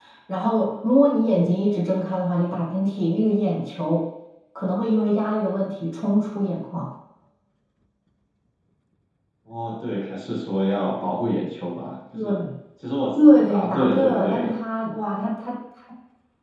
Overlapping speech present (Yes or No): Yes